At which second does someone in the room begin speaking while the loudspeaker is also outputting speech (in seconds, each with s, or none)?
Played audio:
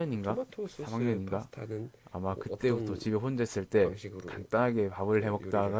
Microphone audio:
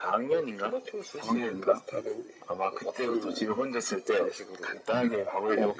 none